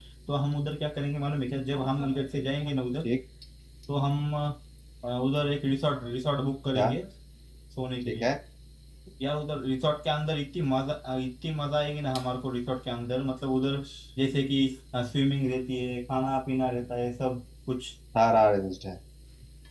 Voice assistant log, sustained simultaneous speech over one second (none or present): none